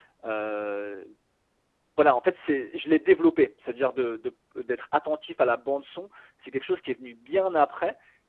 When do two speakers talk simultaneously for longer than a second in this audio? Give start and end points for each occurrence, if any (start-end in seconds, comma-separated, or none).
none